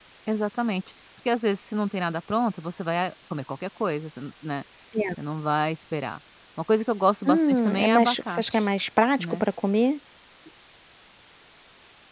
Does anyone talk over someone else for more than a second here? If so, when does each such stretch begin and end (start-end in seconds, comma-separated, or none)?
7.3-8.7